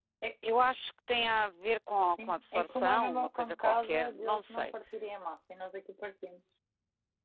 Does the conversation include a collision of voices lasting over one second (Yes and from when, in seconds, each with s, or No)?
Yes, from 2.0 s